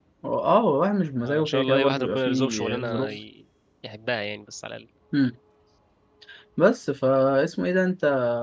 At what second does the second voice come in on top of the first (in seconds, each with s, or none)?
1.2 s